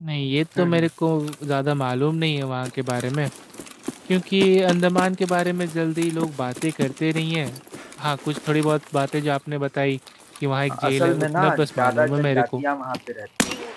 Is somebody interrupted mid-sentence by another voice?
Yes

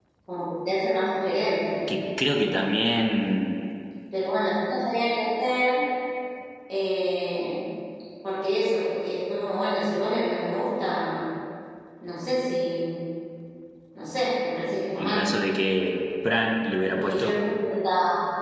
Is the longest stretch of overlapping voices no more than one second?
Yes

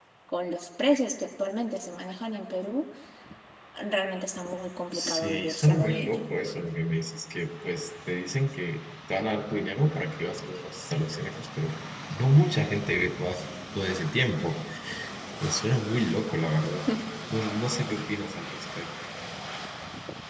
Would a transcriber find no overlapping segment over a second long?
No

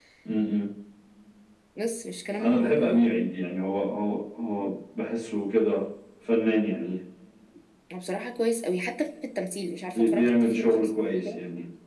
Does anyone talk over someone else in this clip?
Yes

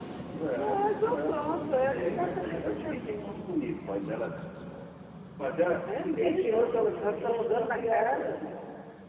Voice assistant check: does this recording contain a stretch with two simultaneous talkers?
Yes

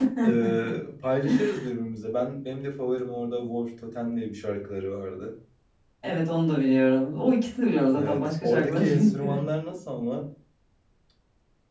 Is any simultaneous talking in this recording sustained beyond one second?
Yes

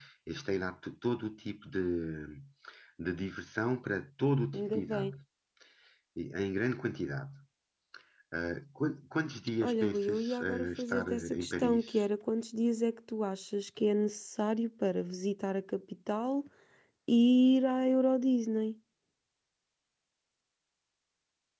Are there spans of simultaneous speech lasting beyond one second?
Yes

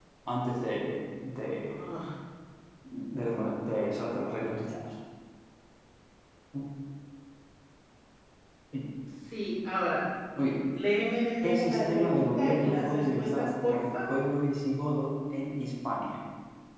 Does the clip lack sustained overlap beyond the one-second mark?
No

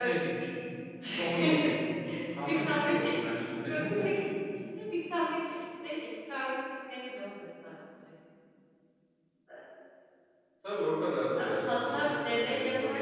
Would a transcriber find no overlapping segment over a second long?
No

